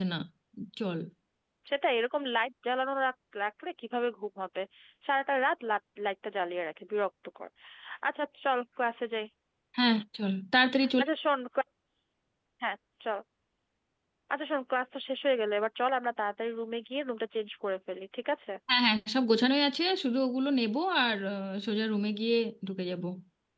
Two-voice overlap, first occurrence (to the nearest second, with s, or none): none